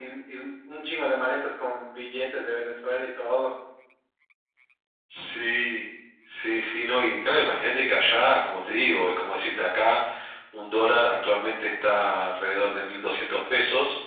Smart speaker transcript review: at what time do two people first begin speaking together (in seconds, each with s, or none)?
none